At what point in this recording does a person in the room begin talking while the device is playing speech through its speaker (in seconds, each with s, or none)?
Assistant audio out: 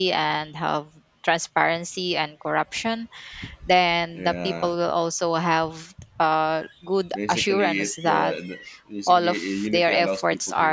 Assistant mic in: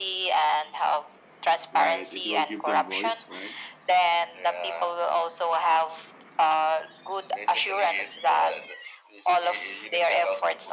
1.7 s